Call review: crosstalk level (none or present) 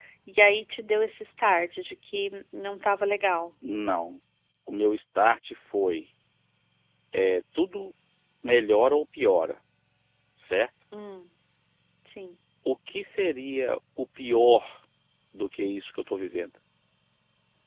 none